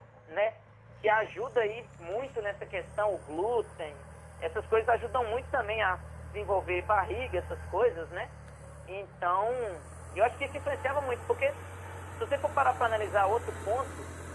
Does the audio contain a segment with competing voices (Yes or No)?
No